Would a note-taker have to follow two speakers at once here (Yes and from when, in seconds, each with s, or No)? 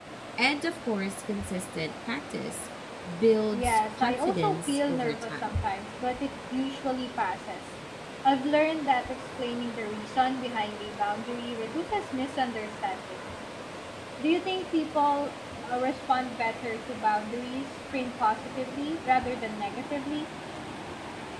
Yes, from 3.5 s